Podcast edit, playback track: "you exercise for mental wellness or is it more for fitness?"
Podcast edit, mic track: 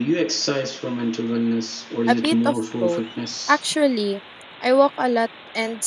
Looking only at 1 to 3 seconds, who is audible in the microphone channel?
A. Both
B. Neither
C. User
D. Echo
A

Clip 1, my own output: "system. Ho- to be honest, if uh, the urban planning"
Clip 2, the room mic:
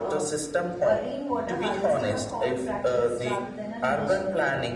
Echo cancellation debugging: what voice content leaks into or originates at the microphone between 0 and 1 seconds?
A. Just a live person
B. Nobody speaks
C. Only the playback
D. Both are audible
D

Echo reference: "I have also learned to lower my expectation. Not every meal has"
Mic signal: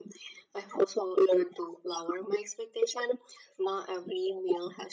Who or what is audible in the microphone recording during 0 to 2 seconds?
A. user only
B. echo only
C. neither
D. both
B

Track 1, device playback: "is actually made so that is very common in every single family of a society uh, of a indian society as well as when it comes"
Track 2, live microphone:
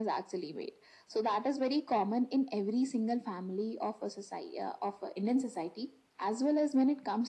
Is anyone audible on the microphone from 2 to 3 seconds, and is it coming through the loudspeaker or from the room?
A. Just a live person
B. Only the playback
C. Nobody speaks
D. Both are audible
B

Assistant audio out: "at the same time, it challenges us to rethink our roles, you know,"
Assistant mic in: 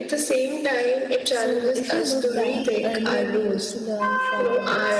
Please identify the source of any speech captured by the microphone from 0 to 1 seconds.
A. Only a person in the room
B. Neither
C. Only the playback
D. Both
C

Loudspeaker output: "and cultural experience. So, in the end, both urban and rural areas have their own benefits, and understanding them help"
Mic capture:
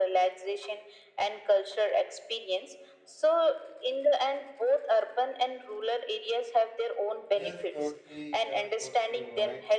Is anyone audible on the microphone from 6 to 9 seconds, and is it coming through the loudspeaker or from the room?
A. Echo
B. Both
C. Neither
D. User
B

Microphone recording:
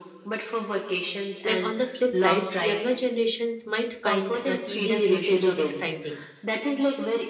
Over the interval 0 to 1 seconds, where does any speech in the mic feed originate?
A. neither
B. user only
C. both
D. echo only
D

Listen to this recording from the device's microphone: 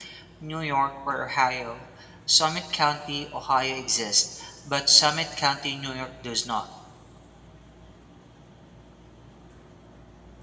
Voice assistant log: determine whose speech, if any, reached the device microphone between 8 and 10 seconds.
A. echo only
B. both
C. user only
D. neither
D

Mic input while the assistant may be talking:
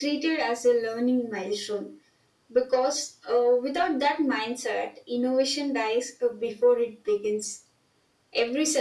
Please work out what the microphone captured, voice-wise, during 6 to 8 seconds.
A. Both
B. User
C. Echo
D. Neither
C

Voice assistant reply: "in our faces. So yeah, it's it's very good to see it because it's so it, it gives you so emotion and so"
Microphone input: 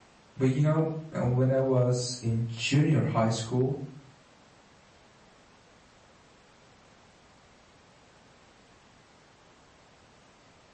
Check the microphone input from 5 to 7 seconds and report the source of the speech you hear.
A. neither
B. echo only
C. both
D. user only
A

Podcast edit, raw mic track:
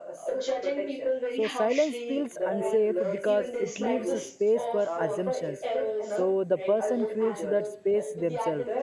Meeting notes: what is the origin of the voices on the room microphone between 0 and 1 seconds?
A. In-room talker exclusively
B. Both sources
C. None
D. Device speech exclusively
D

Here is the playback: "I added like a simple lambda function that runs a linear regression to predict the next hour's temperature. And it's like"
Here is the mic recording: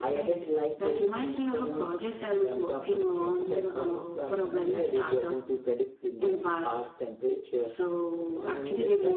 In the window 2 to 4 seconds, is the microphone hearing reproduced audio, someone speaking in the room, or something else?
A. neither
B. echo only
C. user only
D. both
D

